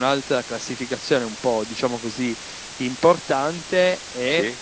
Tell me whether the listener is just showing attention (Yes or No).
Yes